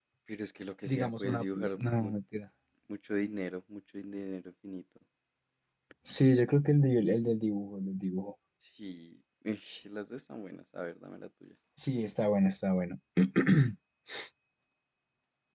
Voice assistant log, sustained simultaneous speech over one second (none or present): present